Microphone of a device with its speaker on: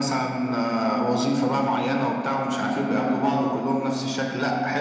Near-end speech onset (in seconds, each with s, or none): none